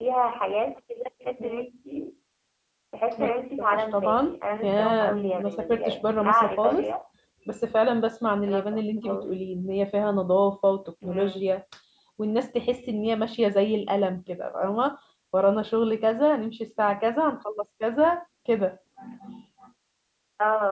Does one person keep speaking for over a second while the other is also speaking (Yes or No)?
Yes